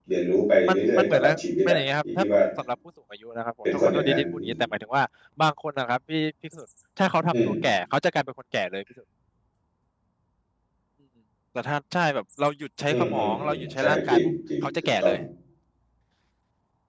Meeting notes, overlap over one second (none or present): present